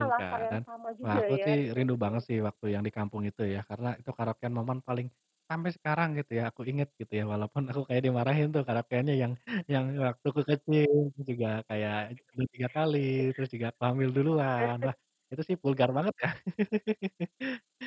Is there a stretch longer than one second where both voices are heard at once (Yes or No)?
Yes